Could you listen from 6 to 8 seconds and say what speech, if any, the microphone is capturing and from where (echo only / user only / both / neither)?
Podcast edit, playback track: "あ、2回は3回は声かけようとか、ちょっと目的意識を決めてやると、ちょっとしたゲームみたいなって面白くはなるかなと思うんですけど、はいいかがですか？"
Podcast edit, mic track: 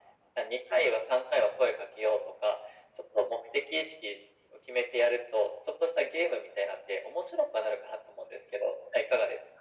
echo only